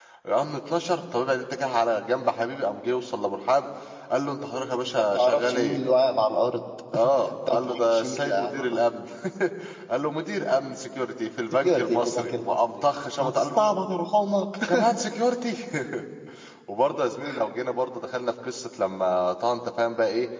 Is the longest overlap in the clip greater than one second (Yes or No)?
Yes